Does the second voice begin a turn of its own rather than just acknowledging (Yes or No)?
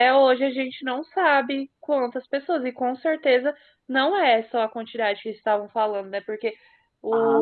No